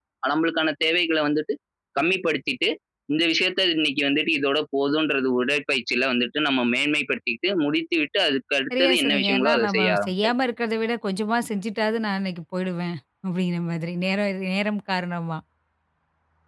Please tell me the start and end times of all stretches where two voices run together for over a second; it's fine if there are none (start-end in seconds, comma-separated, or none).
8.8-10.3